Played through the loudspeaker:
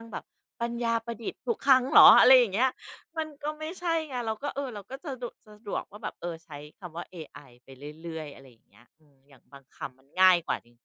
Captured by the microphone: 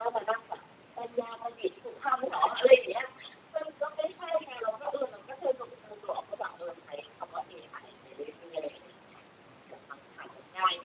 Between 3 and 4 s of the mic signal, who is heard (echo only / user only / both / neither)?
echo only